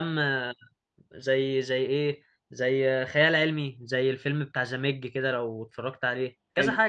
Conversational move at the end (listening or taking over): taking over